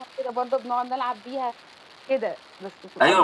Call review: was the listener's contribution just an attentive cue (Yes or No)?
No